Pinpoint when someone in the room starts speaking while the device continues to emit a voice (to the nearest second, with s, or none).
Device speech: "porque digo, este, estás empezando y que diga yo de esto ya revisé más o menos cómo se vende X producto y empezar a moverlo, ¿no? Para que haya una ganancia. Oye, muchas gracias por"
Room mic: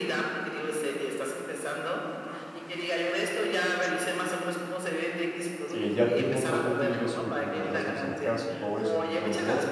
6 s